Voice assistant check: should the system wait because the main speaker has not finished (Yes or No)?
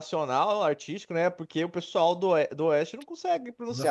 No